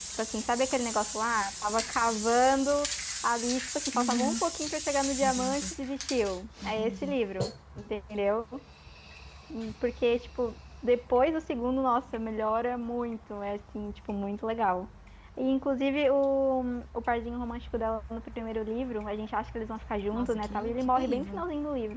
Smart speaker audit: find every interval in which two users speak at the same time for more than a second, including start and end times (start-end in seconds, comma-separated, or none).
20.1-21.4